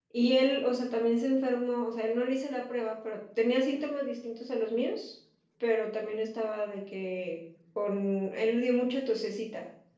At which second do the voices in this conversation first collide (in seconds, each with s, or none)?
none